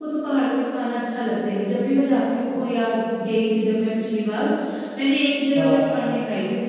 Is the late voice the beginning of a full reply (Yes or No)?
No